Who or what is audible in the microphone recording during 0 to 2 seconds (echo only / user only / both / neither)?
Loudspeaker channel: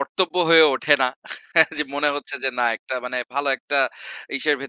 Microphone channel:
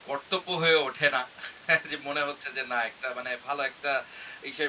echo only